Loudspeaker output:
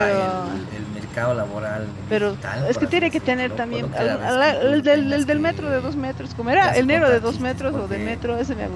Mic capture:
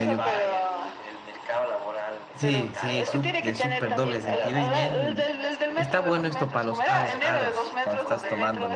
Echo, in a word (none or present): present